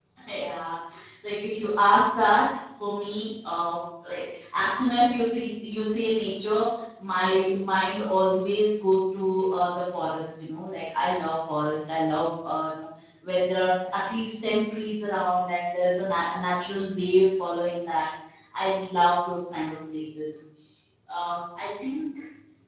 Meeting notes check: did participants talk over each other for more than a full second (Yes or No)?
No